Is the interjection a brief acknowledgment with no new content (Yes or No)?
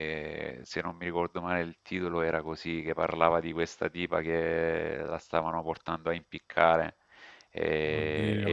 Yes